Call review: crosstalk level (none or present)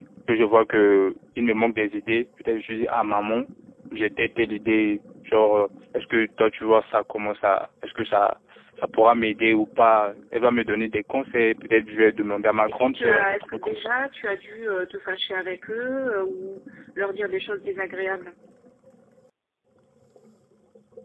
present